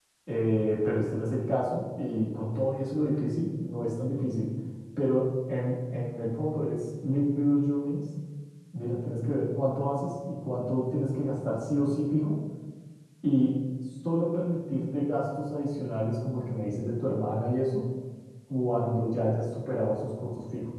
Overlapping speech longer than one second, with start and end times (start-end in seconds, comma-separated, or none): none